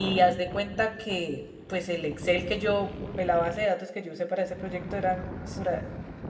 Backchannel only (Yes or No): Yes